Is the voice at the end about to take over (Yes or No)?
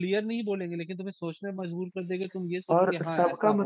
Yes